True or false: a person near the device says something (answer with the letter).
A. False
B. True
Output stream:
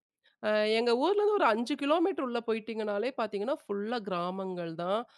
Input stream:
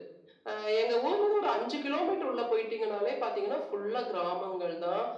A